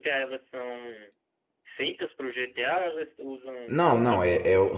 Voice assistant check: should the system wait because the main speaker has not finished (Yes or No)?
No